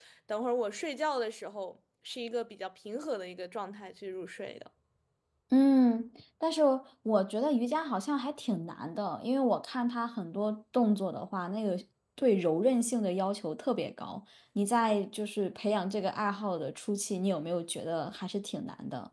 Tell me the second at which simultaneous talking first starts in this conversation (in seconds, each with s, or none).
none